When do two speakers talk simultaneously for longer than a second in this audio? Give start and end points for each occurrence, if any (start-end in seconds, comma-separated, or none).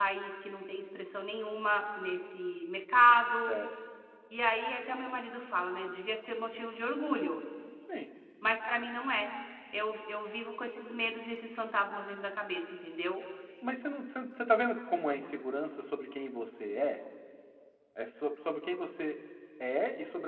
none